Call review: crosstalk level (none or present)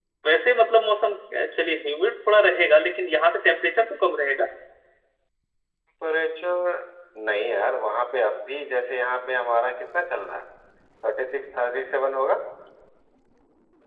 none